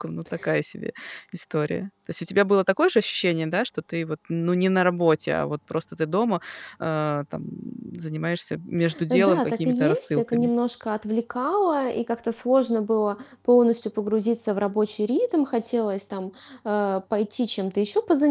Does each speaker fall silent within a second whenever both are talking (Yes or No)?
No